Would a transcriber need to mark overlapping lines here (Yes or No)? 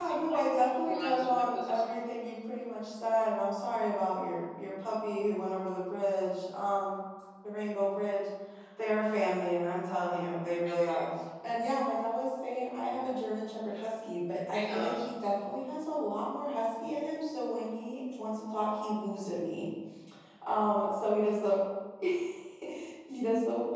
Yes